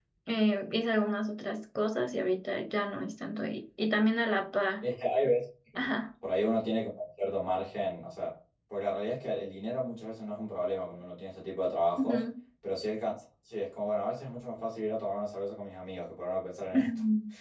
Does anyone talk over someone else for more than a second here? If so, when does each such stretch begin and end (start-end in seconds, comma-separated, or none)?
none